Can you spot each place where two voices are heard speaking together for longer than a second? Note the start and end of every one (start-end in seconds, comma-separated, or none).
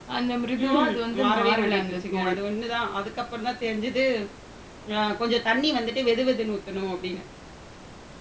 0.6-2.3